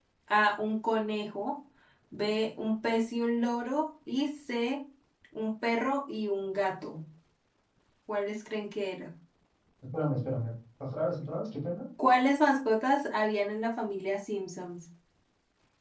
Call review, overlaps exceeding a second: none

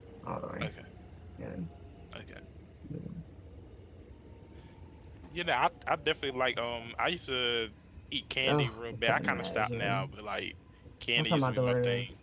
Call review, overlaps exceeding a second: present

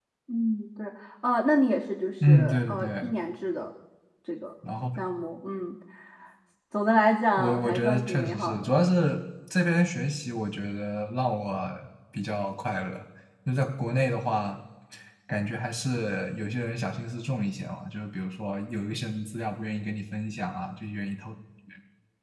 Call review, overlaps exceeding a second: present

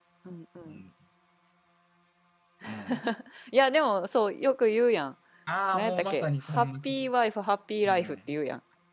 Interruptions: present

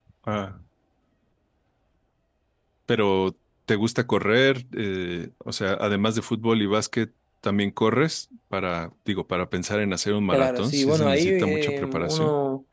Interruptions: present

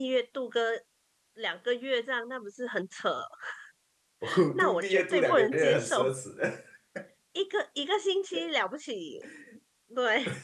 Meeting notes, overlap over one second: present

